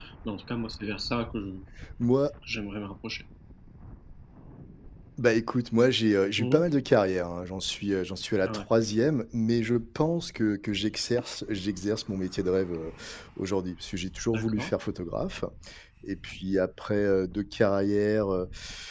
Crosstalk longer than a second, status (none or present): none